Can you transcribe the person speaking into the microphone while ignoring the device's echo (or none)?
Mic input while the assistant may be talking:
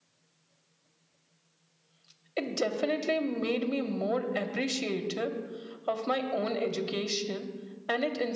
none